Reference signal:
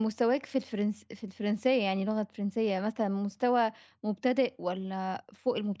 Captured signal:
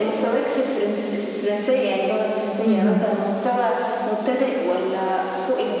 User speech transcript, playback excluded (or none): اهم.